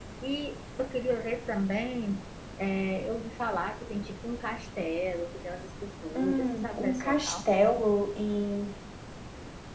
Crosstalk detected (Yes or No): Yes